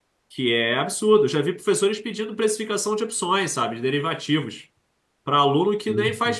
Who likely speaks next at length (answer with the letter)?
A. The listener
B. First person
B